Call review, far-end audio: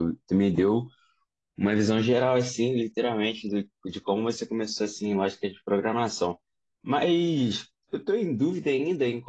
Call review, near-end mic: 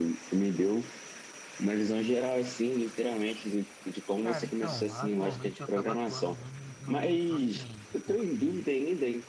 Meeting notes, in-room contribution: present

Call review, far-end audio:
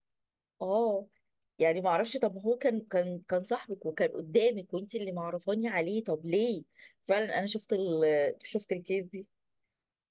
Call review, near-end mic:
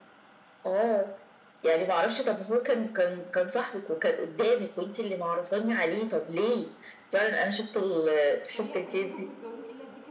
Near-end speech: present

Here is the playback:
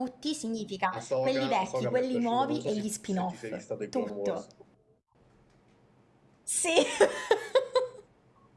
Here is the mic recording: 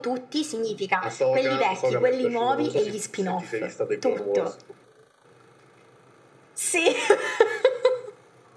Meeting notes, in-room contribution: none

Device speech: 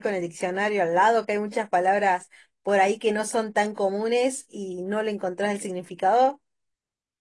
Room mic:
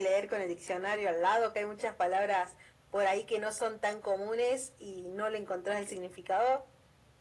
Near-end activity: none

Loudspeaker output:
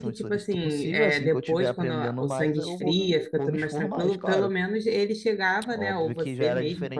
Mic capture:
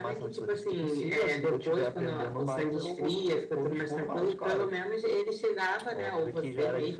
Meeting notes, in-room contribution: none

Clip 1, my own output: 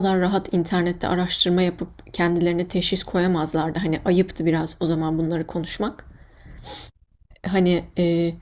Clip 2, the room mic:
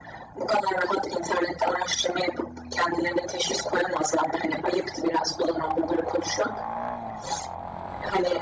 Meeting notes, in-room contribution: none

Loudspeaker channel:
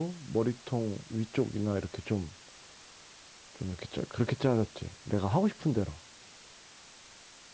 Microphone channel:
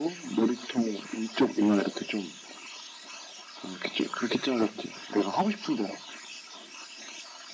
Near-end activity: none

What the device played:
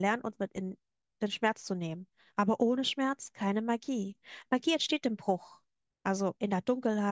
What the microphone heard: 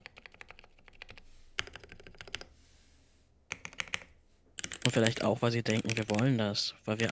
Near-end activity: present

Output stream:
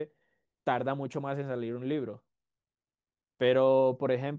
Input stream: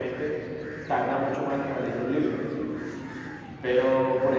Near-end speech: none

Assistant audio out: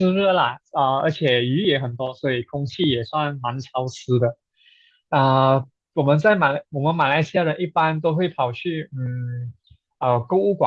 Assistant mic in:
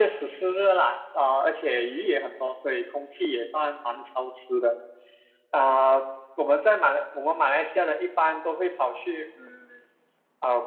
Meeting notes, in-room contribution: none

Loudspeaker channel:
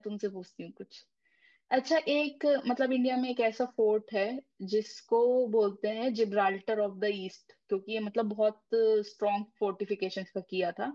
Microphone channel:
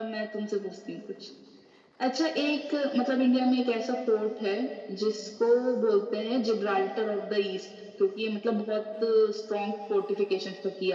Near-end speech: none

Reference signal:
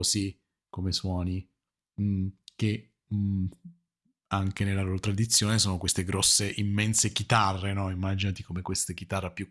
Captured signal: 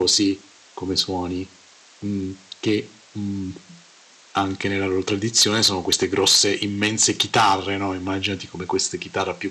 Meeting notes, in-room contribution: none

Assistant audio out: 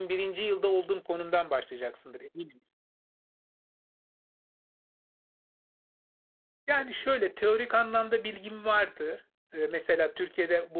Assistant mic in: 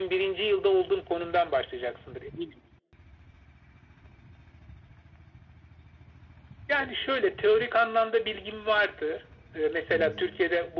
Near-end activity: present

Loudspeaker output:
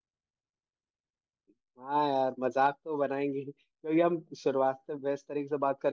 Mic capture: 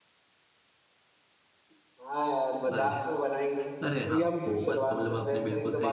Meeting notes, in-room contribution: present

